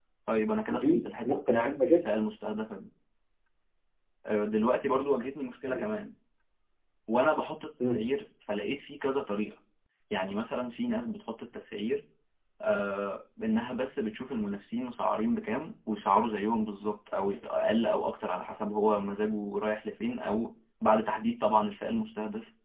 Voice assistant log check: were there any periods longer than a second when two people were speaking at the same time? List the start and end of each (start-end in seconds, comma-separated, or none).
0.7-2.0